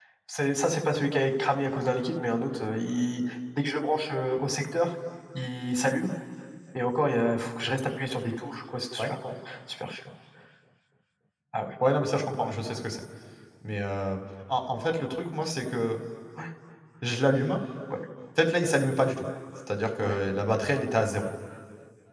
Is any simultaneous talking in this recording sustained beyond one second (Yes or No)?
No